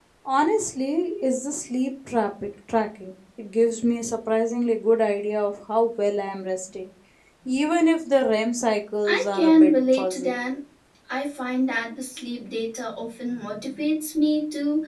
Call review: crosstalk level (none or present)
present